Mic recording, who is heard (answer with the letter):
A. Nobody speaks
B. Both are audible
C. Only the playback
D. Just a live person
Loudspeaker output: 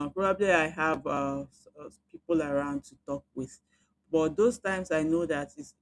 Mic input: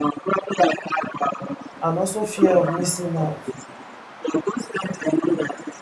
B